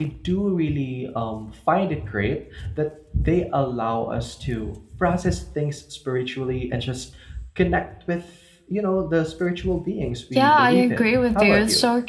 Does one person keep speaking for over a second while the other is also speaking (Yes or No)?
Yes